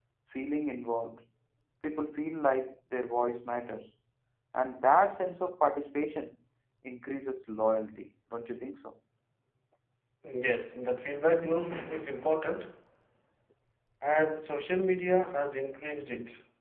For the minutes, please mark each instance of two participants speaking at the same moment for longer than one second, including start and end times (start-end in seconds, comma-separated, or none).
none